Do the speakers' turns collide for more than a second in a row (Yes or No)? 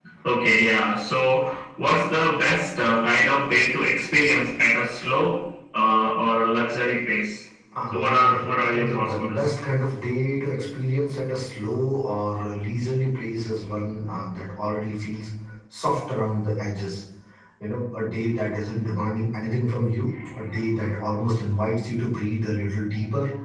Yes